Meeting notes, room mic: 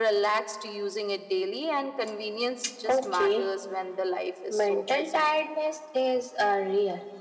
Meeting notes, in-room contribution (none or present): none